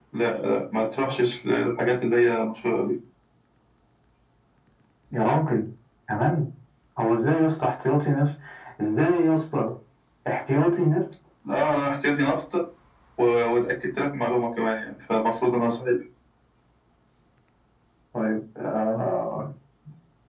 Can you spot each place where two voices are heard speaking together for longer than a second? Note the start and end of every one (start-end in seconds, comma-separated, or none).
none